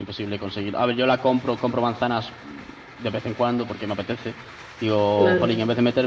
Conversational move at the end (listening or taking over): listening